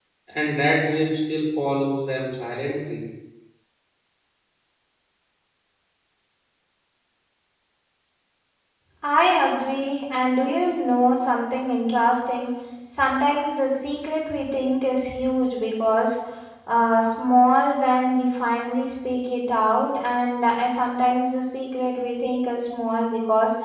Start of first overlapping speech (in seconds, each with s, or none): none